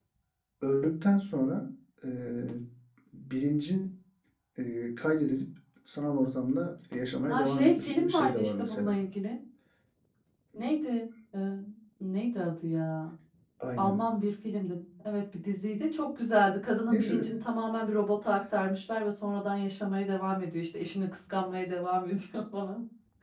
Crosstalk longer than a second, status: present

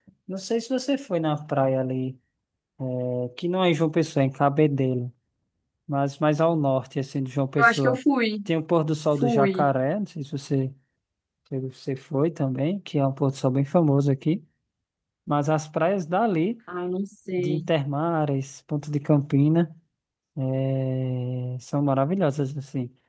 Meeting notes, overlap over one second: none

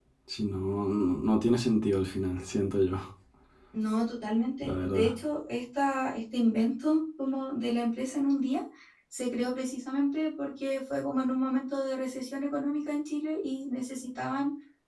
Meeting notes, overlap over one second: none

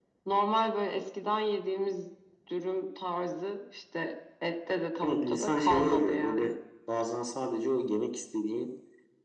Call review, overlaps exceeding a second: present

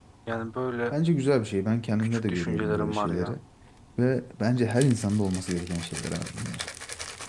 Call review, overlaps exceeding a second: present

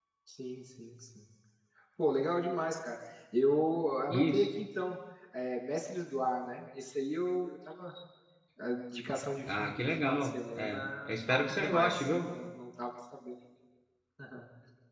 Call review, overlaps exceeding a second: present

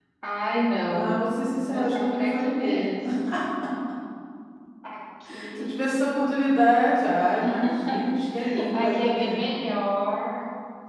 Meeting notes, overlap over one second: present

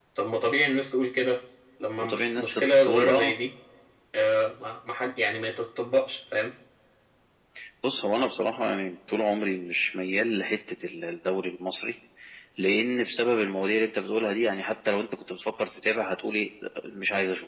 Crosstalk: present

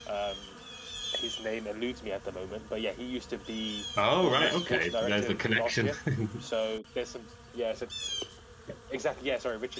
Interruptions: present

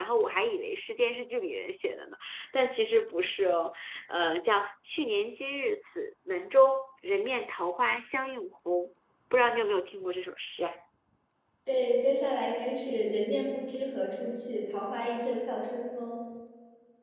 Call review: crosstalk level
none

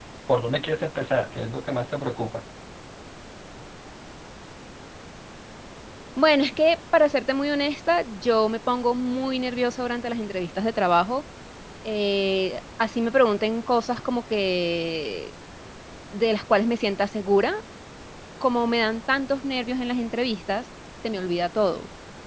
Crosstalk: none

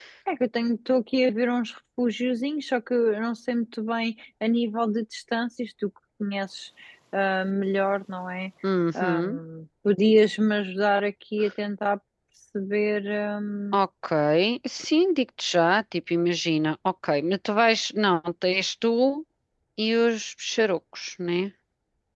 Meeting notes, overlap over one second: none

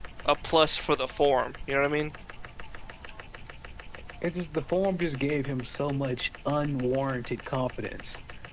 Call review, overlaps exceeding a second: none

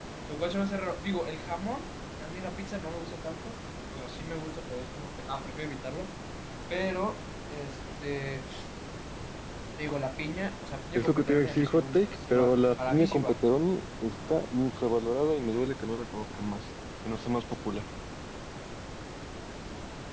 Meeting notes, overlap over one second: present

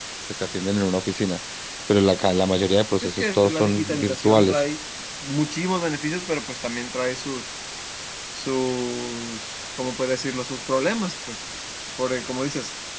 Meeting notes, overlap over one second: present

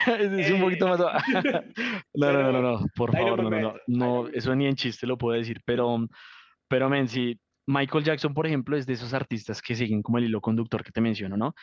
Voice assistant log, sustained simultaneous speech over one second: present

